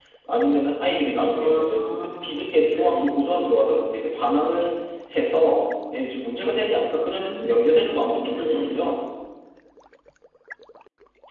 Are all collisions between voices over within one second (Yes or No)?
No